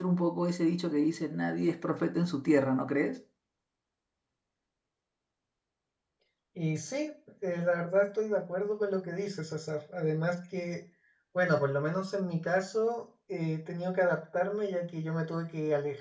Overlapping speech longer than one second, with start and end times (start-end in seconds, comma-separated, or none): none